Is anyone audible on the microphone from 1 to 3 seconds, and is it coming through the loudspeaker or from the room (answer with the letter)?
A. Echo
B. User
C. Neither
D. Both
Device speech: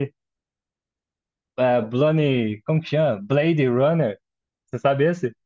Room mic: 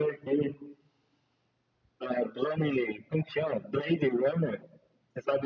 A